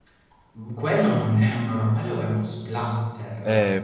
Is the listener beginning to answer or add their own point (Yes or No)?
Yes